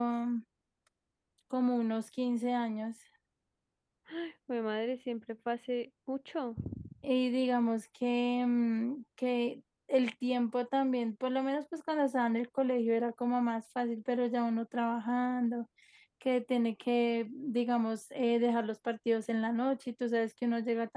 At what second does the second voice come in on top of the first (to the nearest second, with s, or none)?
none